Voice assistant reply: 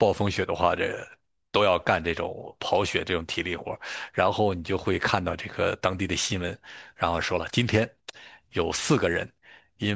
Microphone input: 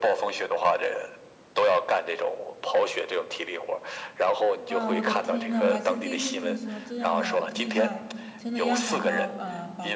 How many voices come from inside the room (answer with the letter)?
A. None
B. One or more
B